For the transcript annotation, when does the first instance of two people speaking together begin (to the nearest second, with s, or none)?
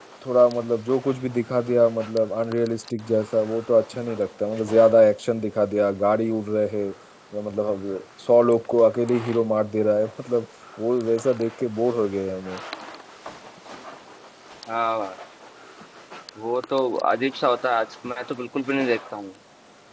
none